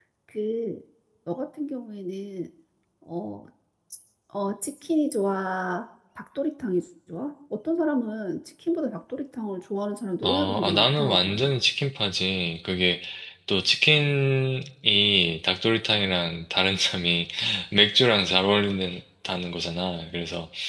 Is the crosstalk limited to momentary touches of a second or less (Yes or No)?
No